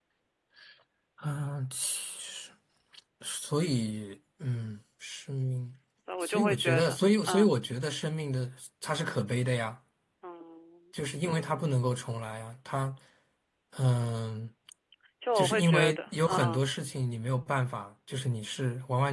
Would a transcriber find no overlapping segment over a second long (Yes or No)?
No